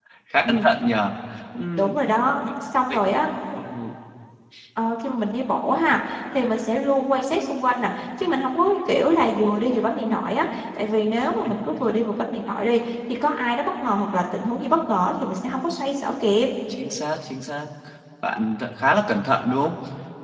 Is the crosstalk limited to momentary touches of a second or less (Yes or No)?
Yes